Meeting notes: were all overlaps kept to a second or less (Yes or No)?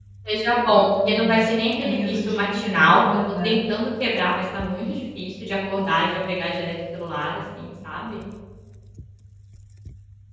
No